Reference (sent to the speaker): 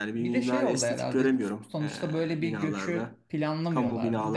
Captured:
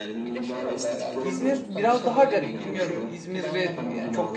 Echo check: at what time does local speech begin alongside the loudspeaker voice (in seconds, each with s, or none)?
1.2 s